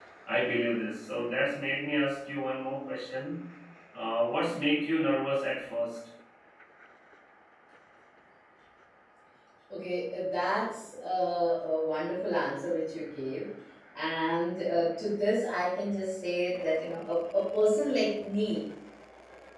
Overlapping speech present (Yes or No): No